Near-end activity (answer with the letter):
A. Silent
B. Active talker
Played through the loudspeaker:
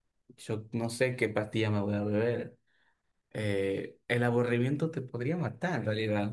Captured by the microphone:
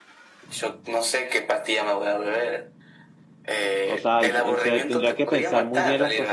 B